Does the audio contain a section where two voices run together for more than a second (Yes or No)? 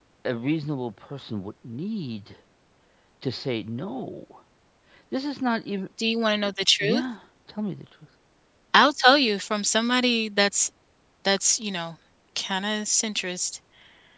No